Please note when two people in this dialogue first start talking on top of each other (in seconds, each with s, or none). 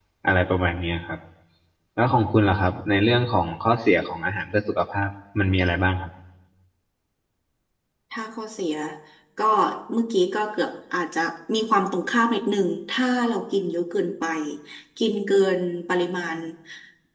none